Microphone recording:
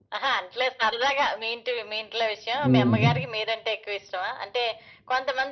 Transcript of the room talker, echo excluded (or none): హ్మ్.